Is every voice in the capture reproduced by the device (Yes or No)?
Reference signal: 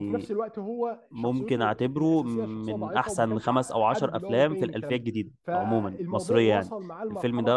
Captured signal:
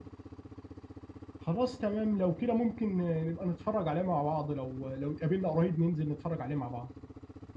No